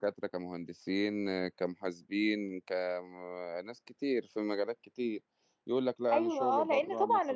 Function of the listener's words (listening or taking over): taking over